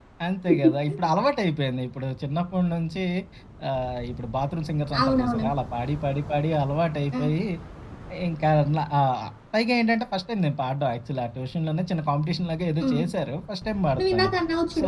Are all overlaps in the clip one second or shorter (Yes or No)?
Yes